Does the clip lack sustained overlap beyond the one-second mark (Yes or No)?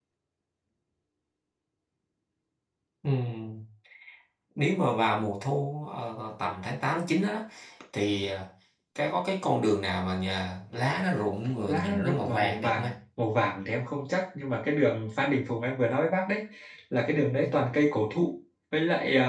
No